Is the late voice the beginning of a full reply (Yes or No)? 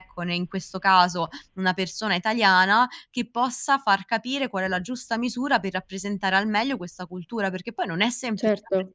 No